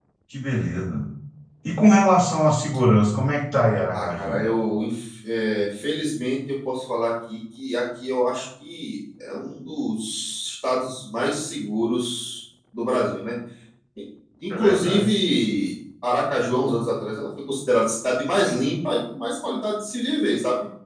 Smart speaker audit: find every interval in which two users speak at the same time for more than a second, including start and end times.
none

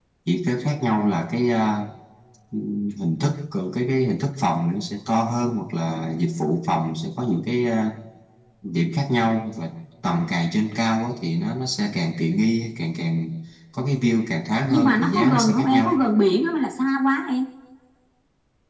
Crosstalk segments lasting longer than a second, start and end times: 14.7-16.0

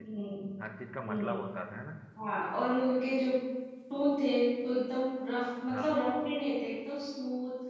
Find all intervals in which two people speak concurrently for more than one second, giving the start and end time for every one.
none

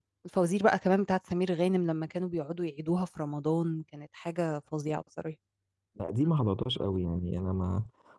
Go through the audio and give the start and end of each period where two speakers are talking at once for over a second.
none

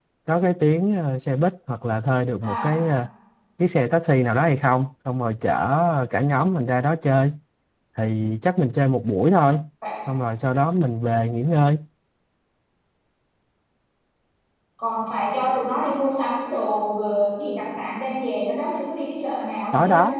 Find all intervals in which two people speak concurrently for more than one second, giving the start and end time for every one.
none

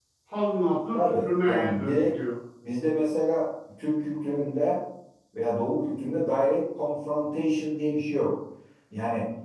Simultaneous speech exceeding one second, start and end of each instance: 0.9-2.1

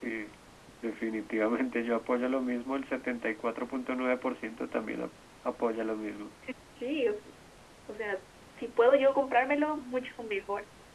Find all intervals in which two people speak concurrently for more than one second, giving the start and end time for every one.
none

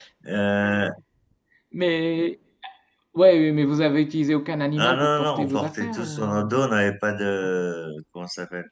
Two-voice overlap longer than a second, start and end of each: 4.8-6.6

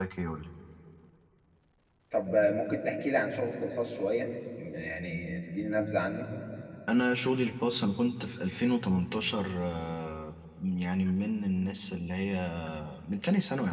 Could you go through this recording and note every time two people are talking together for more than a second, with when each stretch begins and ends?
none

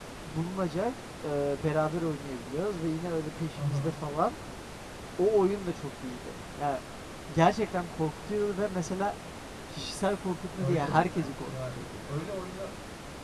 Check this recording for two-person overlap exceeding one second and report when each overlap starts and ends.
10.6-11.8

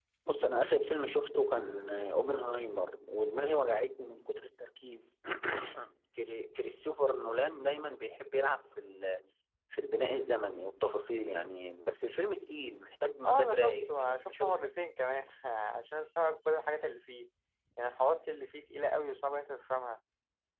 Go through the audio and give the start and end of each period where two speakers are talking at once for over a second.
13.2-14.7

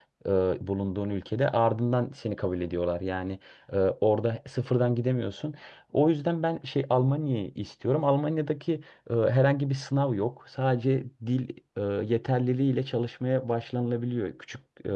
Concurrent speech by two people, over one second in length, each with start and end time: none

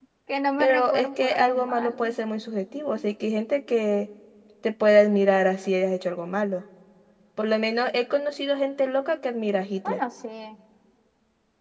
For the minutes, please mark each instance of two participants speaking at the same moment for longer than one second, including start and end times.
0.6-2.1

